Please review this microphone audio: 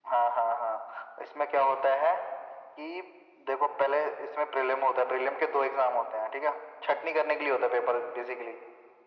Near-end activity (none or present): none